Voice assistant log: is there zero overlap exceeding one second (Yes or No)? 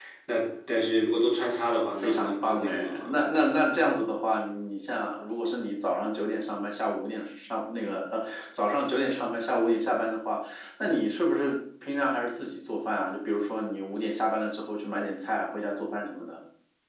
No